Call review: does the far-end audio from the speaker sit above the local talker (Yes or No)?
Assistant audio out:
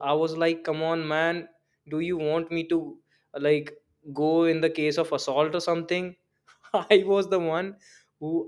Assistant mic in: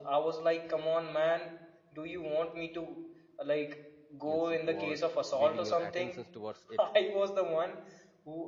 Yes